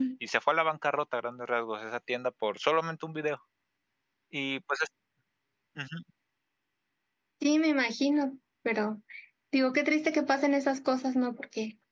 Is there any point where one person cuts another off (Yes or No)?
No